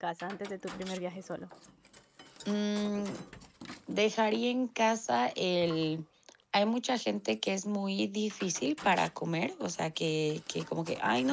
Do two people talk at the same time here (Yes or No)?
No